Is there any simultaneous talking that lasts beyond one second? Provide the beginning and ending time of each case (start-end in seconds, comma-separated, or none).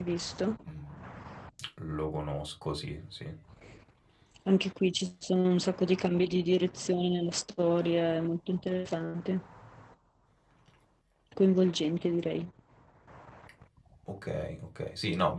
none